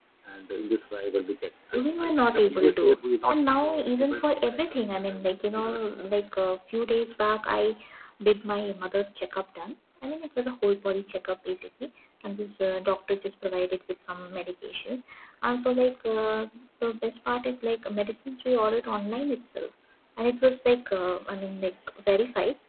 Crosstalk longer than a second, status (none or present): present